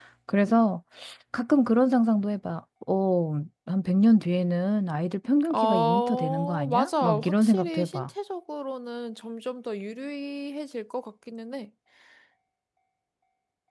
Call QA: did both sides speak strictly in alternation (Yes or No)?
No